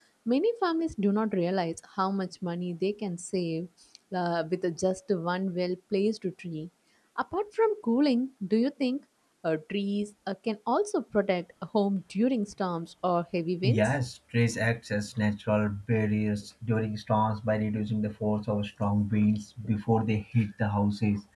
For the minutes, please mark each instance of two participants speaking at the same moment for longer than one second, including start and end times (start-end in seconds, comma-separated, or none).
none